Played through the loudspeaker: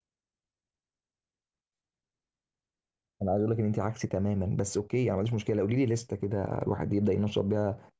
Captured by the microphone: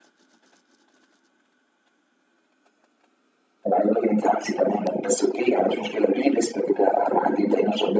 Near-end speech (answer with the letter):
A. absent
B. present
A